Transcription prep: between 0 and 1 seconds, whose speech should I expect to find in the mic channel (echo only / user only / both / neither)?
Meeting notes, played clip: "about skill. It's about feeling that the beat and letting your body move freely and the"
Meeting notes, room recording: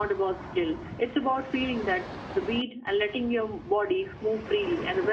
echo only